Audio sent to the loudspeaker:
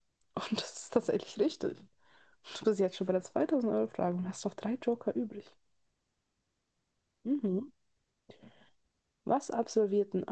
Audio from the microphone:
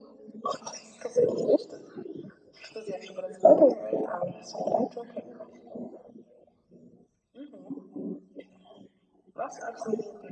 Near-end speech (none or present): none